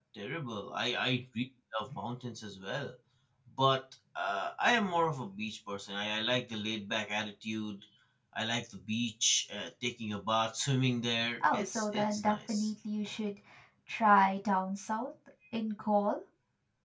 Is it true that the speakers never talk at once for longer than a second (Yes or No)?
No